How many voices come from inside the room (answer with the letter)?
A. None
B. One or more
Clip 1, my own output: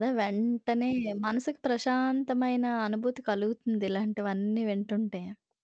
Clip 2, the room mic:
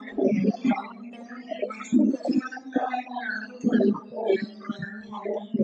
A